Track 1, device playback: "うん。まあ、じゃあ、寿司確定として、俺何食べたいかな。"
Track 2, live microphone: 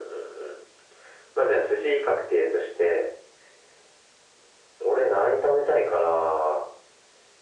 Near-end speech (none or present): none